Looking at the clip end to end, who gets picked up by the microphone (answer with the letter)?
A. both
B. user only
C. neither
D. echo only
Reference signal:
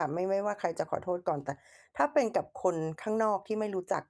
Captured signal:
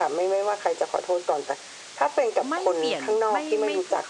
A